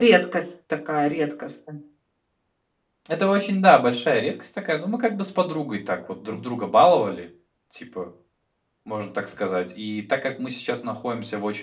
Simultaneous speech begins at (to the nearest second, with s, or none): none